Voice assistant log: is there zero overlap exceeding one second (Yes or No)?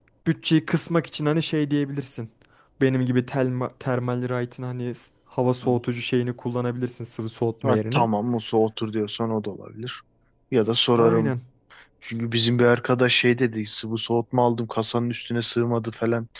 Yes